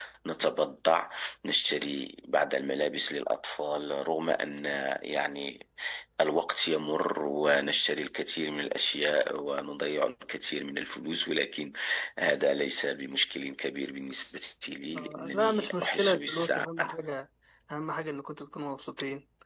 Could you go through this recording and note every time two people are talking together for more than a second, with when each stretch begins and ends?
14.9-16.9

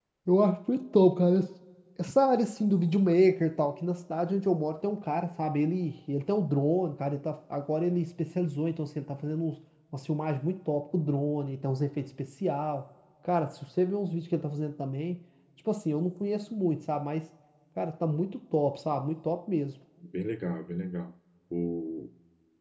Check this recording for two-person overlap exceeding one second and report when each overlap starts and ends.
none

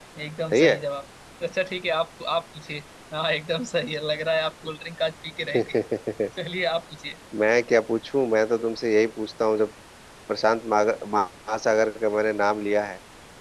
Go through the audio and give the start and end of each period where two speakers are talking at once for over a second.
none

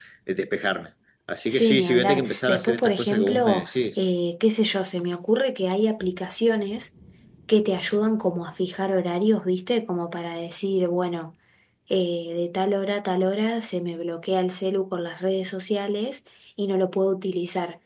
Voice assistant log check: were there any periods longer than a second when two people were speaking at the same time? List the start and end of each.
1.5-3.8

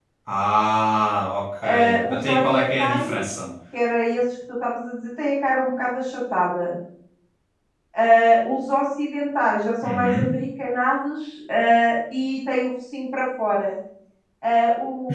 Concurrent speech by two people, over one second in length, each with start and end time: 1.6-3.2

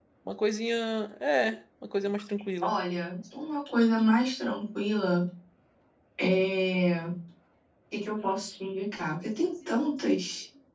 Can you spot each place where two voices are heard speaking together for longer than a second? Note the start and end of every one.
none

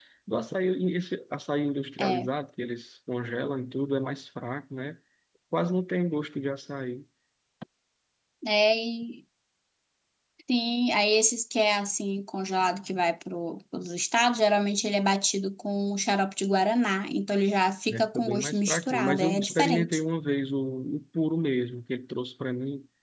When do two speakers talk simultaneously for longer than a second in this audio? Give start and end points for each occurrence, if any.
17.9-20.0

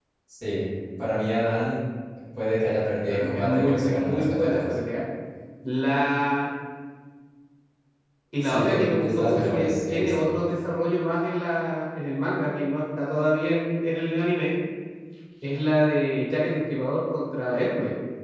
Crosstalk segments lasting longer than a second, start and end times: 3.1-4.8, 8.4-10.3

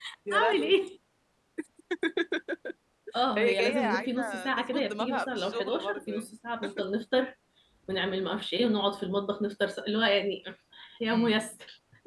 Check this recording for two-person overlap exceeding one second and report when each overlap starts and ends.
3.4-6.2

